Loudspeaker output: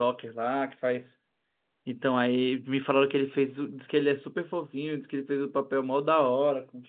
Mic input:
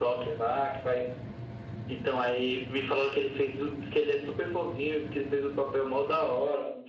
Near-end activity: none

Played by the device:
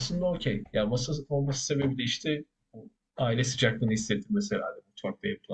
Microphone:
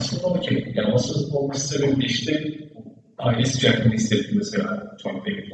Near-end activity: none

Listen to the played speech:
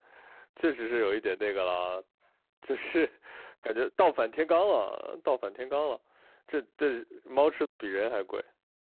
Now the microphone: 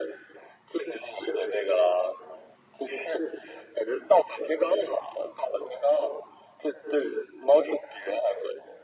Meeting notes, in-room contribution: none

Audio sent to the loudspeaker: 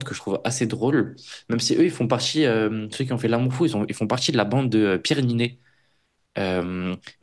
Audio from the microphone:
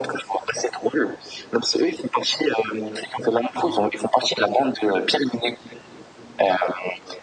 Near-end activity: present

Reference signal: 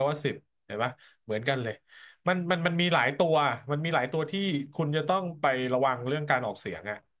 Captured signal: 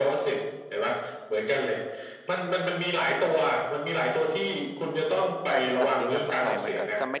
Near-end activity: present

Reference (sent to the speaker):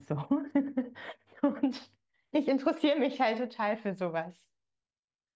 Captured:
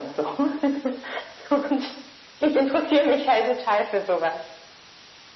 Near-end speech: none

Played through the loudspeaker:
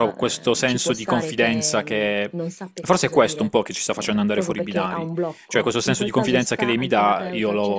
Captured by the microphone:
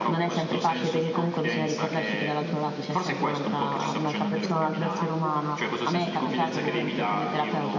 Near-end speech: present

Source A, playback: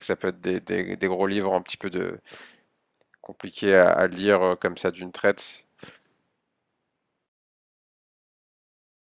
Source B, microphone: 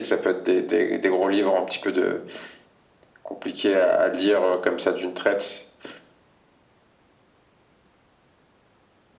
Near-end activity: none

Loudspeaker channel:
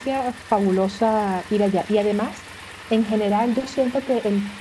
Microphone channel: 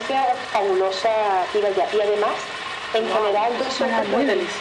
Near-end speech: present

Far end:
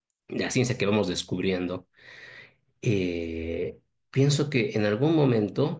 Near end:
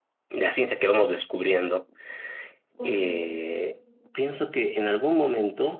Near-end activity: present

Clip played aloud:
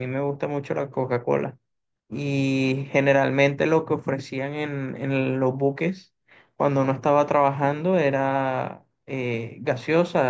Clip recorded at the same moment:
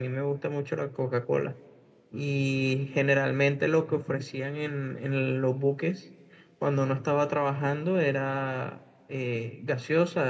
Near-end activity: none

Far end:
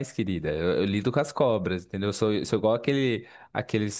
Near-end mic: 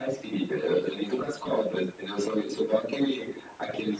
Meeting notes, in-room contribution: none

